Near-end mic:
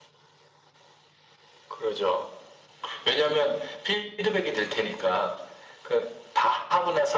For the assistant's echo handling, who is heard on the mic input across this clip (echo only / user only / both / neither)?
echo only